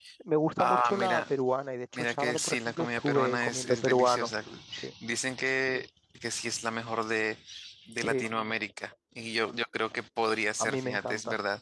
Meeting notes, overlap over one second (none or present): present